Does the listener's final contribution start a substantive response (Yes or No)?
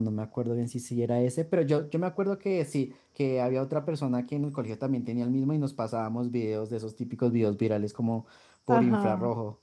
Yes